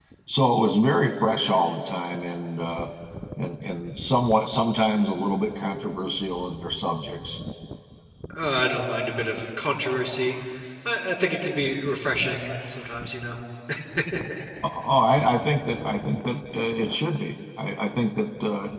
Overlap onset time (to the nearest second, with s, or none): none